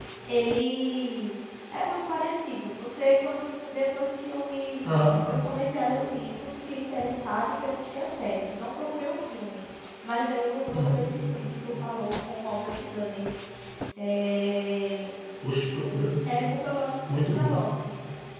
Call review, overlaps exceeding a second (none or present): none